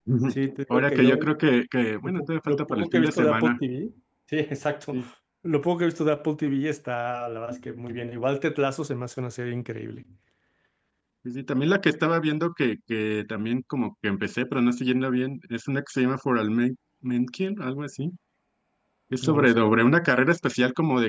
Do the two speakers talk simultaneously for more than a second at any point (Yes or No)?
Yes